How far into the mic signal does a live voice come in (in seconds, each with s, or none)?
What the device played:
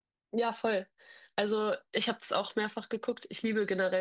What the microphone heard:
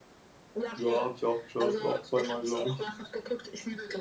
0.7 s